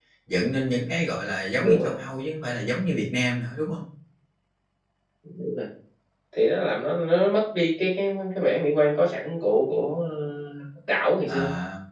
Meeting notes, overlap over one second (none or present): none